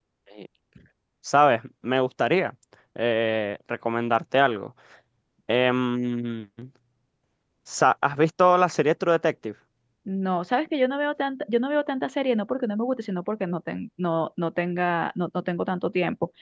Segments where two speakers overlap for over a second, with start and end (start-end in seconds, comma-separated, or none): none